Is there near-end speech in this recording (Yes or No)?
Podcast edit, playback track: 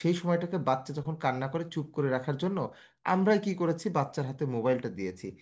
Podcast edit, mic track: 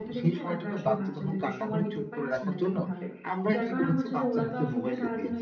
Yes